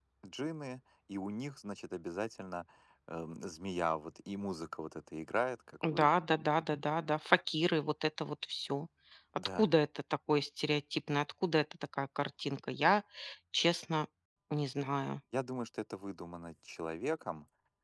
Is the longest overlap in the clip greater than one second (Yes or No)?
No